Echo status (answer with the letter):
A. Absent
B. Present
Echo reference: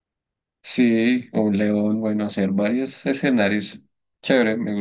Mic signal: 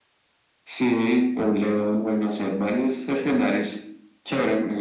B